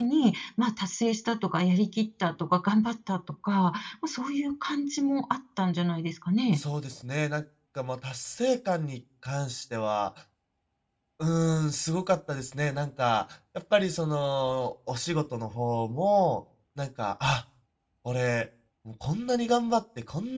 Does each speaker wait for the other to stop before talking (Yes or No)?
Yes